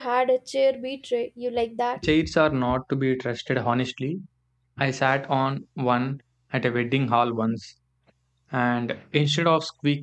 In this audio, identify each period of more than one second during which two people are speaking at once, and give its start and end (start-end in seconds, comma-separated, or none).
none